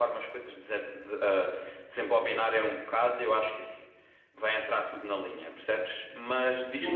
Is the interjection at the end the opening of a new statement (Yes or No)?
Yes